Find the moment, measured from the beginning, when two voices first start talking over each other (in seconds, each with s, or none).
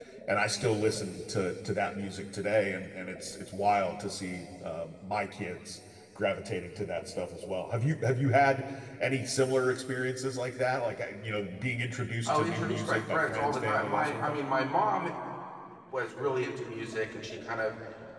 12.2 s